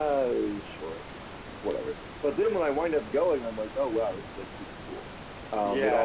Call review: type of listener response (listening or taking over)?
taking over